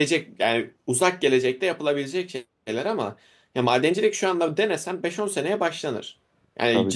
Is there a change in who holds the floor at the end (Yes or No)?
No